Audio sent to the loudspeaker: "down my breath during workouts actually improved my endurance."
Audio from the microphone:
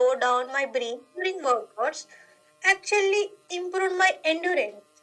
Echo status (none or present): present